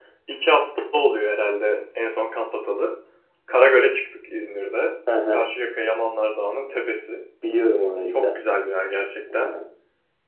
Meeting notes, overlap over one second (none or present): none